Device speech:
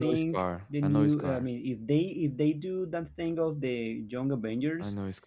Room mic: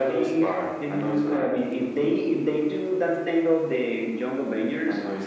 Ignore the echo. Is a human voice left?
No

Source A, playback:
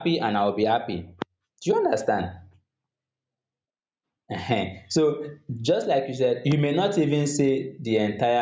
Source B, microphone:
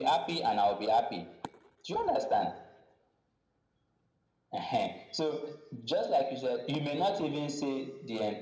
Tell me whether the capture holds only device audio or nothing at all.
Yes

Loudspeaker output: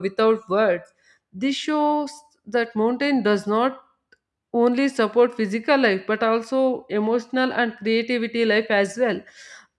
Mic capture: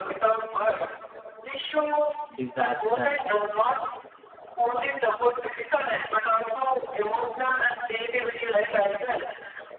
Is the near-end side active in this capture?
Yes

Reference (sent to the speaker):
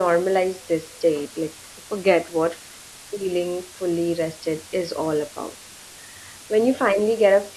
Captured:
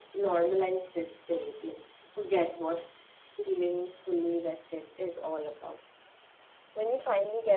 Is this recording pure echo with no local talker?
Yes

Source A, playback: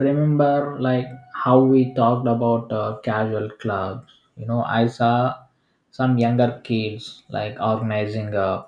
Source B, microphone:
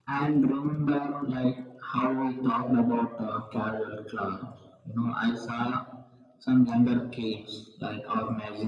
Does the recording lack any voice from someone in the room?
Yes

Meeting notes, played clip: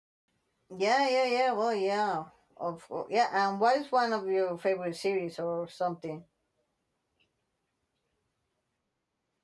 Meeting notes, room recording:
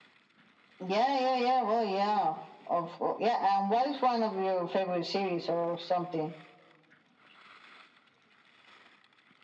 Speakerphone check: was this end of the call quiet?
Yes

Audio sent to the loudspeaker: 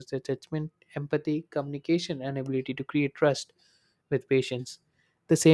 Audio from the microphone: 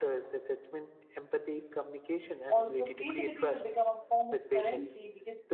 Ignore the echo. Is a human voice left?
Yes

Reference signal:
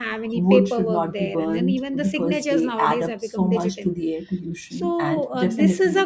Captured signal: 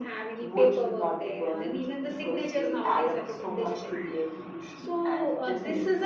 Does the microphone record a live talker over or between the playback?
No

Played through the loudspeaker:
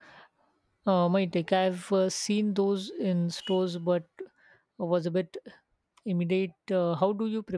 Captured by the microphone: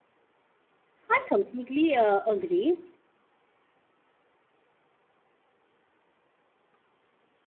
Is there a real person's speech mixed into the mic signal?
Yes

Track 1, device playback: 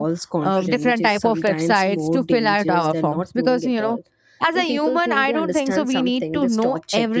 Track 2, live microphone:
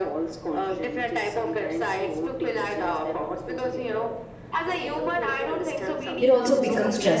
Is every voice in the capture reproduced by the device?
No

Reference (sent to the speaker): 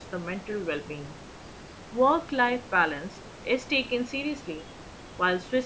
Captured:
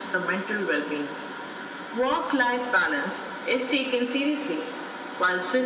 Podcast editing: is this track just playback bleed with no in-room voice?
Yes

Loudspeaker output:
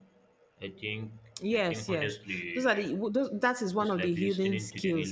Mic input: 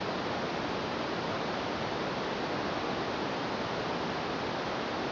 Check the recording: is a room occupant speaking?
No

